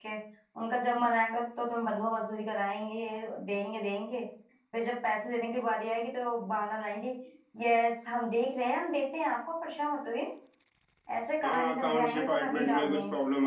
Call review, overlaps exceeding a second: present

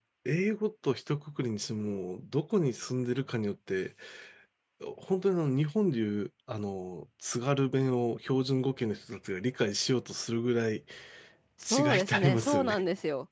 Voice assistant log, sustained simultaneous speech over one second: present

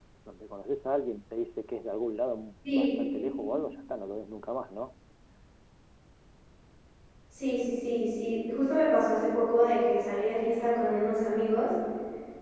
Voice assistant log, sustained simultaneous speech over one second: none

